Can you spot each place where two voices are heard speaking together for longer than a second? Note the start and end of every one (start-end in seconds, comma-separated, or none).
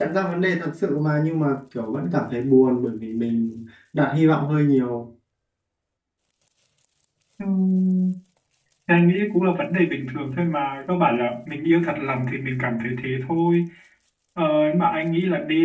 none